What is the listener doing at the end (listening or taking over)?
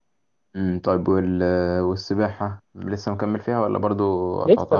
taking over